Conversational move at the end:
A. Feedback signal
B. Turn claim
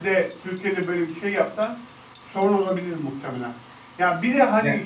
A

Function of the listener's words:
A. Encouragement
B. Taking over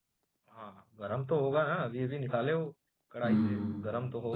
B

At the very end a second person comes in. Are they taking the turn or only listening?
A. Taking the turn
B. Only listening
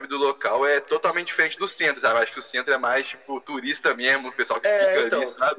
A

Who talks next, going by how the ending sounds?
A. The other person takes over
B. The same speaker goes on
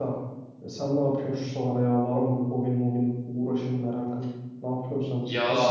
A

